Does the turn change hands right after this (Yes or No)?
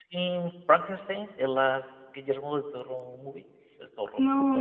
Yes